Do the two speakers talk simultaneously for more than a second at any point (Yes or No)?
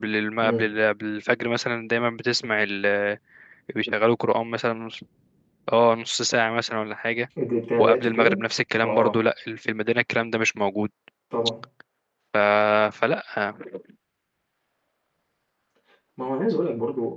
No